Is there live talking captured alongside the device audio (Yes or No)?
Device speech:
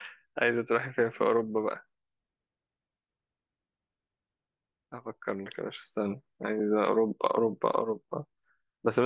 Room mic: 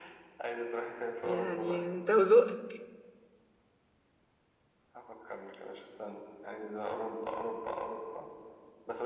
Yes